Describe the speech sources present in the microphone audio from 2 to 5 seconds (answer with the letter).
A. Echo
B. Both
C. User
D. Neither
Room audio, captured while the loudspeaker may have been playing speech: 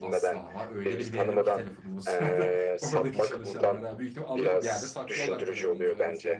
B